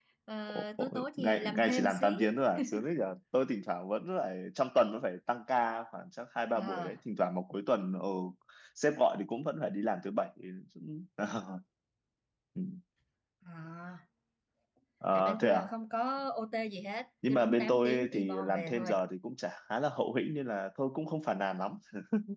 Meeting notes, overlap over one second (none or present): present